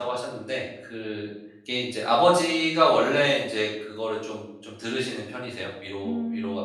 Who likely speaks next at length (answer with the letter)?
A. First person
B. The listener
B